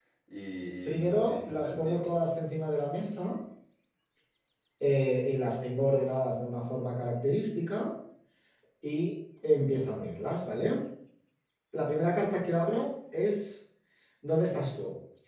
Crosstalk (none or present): present